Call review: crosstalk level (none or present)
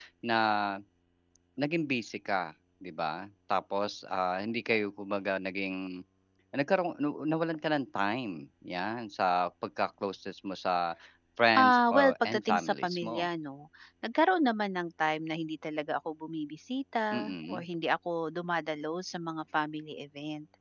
present